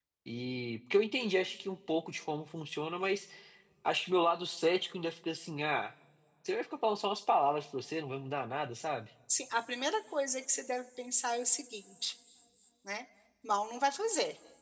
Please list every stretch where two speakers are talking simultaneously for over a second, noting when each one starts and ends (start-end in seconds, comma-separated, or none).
none